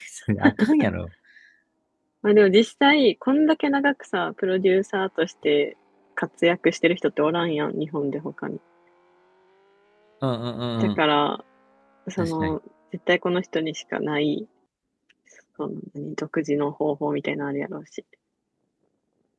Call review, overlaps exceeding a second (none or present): none